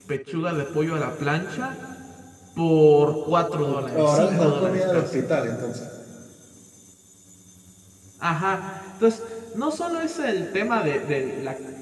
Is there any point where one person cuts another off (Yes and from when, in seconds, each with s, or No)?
Yes, from 3.6 s